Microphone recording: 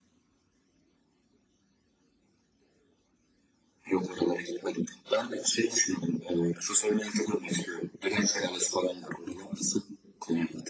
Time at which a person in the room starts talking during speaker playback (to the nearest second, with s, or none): none